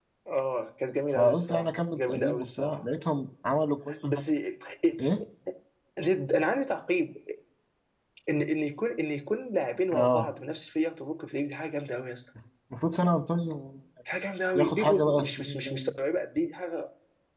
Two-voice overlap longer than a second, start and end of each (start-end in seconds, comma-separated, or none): 1.1-2.8, 14.6-15.9